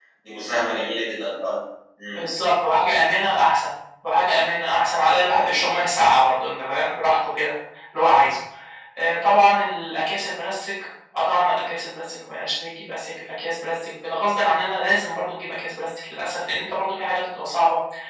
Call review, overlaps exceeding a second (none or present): none